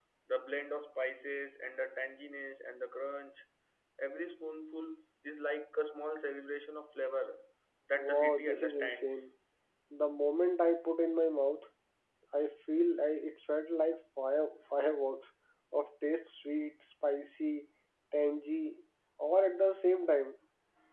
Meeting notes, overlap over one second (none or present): present